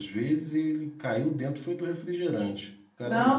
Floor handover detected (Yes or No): Yes